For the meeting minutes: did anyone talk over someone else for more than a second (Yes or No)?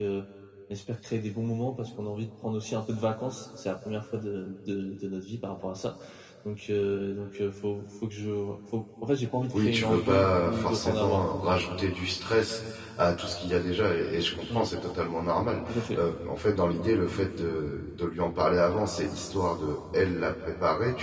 Yes